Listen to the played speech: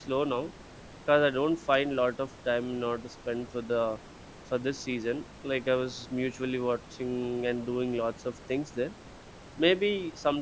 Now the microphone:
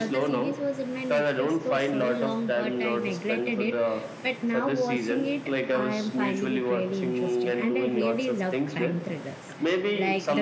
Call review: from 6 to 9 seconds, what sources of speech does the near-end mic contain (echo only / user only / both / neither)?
both